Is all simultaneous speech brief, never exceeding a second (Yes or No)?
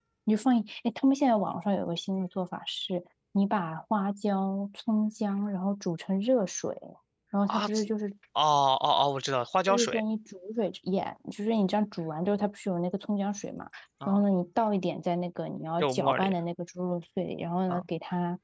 Yes